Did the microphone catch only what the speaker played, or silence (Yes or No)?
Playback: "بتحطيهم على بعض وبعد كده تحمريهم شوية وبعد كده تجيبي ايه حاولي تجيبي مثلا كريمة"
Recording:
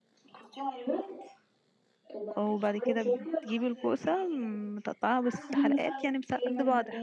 No